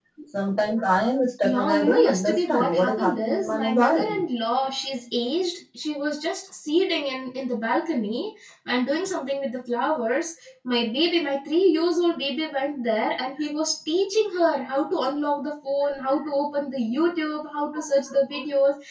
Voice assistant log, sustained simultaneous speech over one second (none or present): present